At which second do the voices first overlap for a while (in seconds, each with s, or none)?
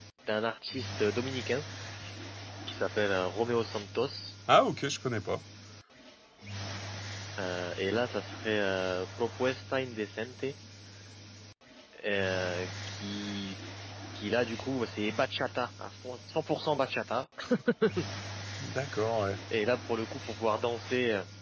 none